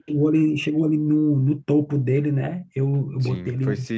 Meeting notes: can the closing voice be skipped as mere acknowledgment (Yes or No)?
No